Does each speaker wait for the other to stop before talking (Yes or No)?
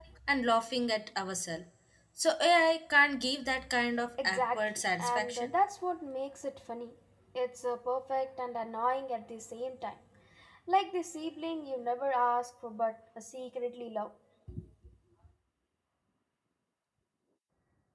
No